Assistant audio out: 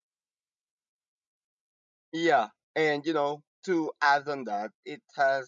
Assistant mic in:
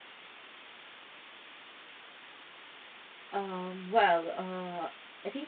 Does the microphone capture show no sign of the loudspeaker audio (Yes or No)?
Yes